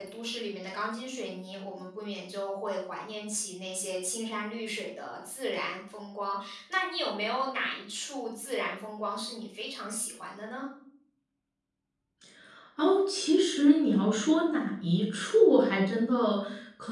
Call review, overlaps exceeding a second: none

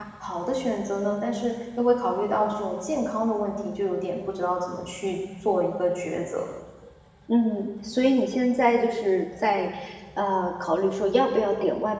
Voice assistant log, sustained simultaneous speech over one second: none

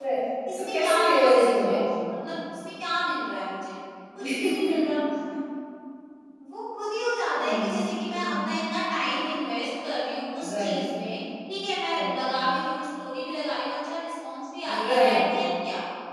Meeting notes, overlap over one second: present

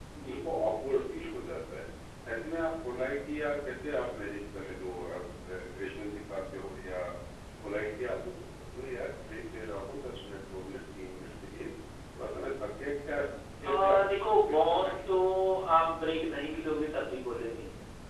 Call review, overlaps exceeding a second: present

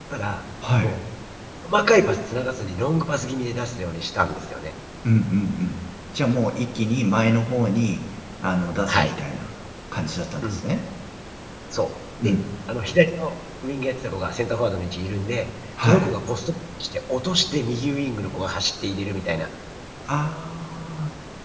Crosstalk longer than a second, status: none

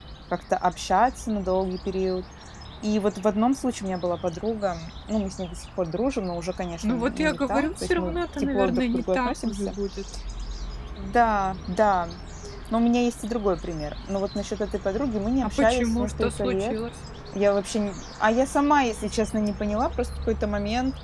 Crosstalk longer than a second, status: present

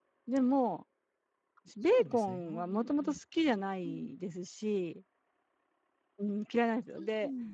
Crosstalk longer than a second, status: present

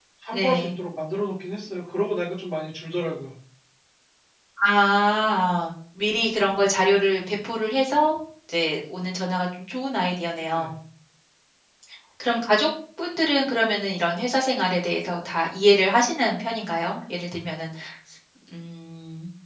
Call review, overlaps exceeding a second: none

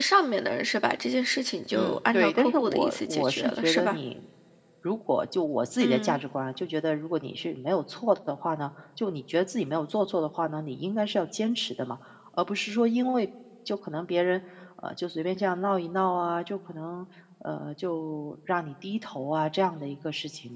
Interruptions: present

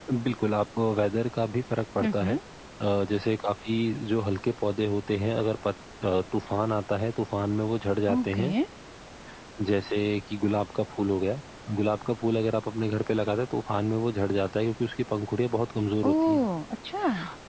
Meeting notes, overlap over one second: none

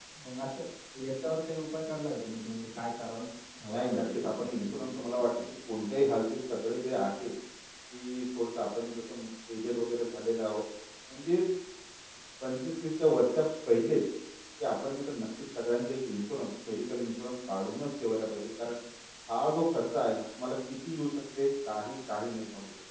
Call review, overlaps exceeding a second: present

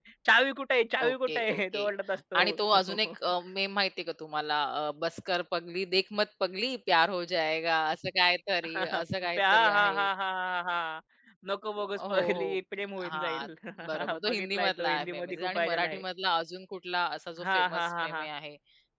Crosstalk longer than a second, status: present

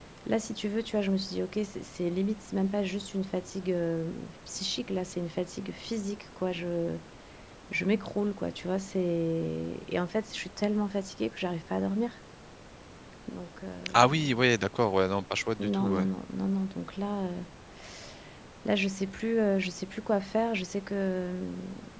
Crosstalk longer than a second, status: none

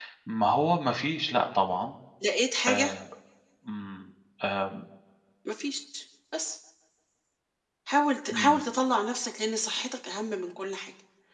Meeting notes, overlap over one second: none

